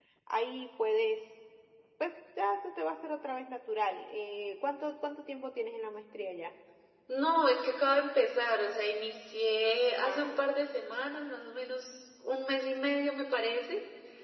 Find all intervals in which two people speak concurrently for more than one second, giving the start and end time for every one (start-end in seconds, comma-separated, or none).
none